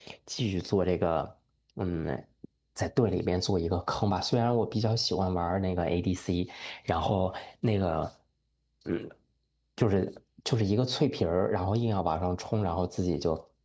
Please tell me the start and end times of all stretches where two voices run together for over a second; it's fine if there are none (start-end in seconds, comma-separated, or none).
none